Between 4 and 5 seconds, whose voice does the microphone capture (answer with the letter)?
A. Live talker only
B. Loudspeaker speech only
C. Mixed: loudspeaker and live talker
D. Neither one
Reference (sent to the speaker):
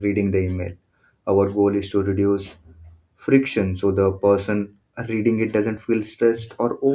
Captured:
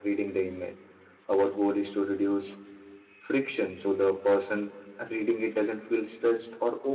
B